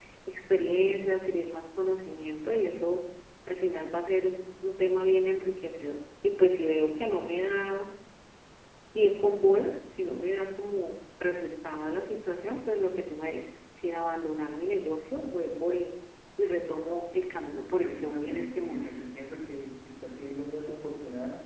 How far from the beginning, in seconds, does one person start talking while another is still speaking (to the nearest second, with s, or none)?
18 s